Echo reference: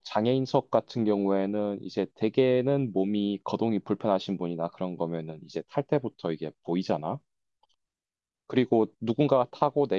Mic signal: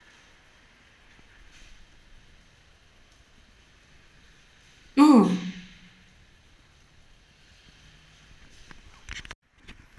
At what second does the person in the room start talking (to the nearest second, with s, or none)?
5 s